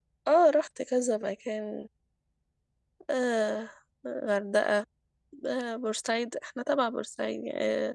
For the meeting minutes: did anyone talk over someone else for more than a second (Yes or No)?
No